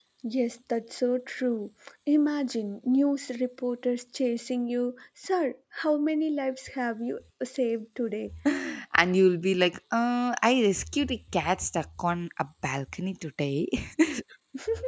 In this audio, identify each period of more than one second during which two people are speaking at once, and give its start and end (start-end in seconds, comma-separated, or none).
none